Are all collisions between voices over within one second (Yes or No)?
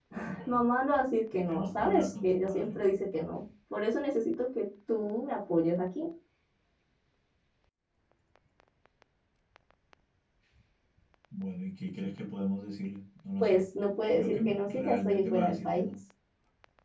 No